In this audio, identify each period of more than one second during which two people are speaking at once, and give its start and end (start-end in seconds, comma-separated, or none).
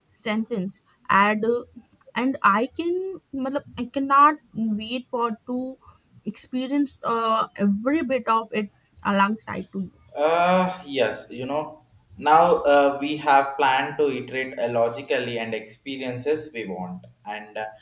none